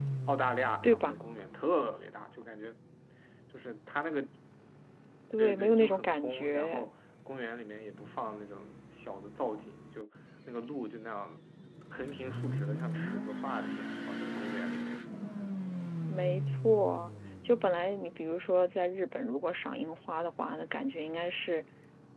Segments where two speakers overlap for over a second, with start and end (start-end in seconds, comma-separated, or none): 5.4-6.9